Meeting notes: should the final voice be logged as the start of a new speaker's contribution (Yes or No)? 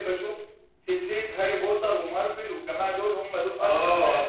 Yes